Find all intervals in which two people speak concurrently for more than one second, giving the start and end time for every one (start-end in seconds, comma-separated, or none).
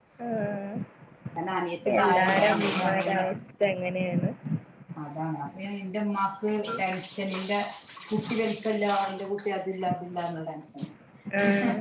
2.0-3.2